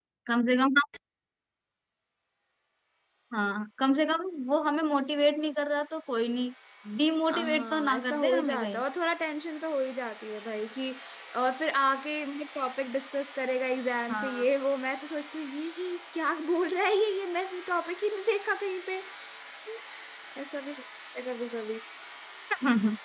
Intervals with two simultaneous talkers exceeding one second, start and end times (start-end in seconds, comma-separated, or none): 7.3-8.8